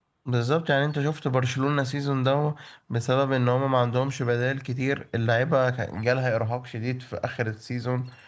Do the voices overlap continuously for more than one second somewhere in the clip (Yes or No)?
No